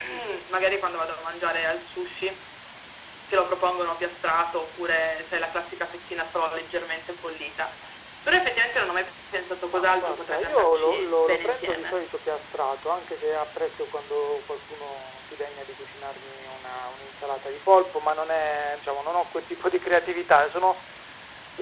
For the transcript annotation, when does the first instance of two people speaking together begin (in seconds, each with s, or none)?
9.6 s